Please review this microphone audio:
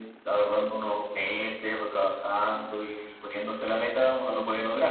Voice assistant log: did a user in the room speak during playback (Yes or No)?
No